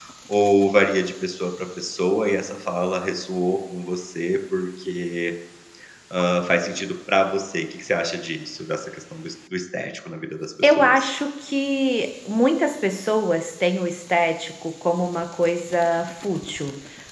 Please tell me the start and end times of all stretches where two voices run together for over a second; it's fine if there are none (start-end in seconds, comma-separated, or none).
none